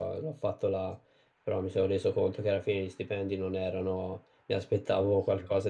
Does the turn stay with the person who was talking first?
Yes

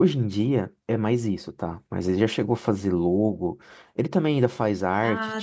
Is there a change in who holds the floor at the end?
No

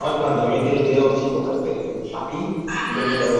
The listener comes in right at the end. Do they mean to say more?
No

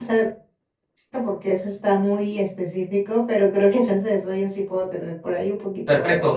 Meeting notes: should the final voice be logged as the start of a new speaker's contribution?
Yes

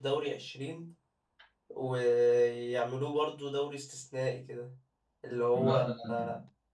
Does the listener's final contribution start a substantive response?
No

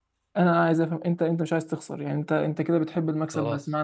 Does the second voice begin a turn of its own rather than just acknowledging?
No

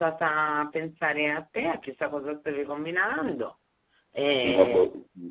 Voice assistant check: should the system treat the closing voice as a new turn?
Yes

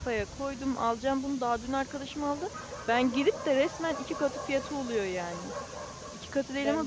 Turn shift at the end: No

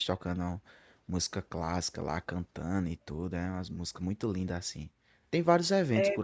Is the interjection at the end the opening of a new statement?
No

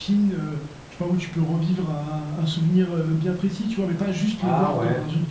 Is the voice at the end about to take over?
No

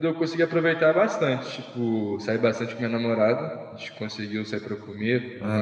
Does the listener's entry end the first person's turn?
No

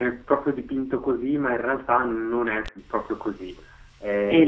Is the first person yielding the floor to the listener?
Yes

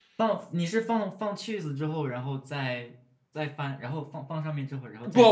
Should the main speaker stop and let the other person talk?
Yes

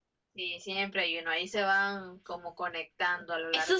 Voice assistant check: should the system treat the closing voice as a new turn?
Yes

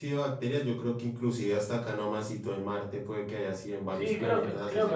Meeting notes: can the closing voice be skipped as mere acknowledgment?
No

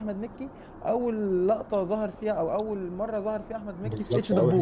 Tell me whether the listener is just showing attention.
No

